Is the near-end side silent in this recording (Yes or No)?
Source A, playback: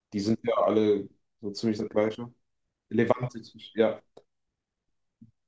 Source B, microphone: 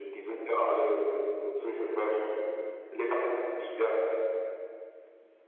Yes